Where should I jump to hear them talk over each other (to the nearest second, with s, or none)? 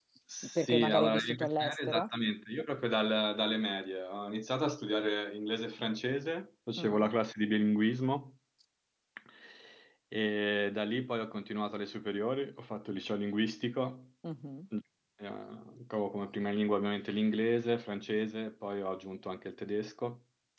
1 s